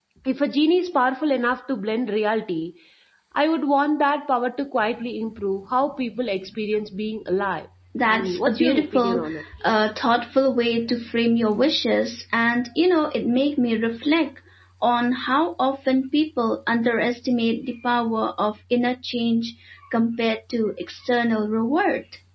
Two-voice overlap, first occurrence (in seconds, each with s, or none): 8.1 s